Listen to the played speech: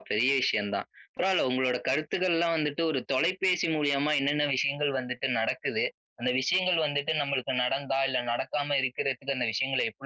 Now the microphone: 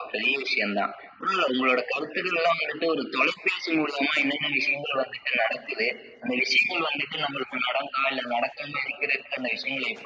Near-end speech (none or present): none